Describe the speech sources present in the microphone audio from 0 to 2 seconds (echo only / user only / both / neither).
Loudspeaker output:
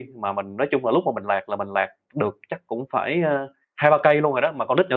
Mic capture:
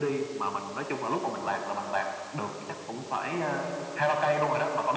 echo only